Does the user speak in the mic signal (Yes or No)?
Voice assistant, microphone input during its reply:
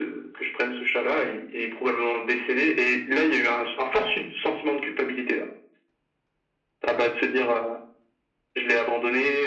No